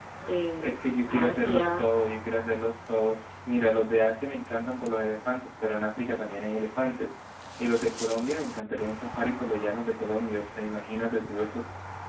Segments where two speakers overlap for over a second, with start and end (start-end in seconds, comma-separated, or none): 0.6-1.9